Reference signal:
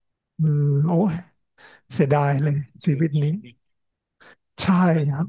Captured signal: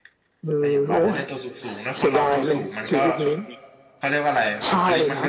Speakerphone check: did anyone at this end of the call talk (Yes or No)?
Yes